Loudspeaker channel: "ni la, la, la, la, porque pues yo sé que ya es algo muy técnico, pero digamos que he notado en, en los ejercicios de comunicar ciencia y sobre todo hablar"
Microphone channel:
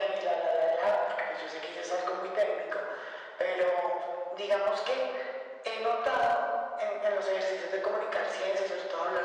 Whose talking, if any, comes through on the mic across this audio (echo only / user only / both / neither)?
echo only